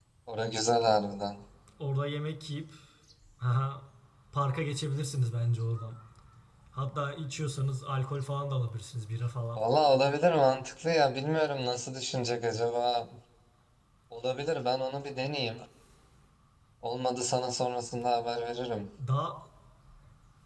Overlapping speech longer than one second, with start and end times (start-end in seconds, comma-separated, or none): none